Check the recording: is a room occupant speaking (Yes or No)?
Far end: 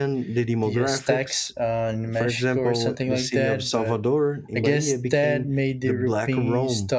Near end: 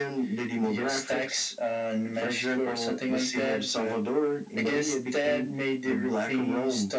No